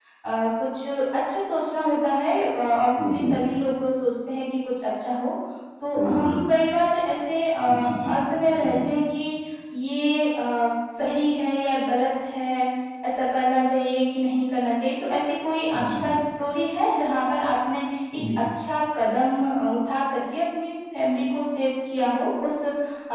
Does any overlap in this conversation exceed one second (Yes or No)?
No